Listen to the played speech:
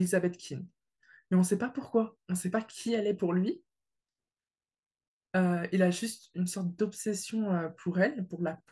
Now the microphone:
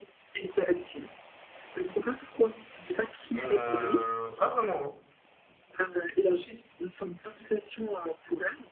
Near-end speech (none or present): present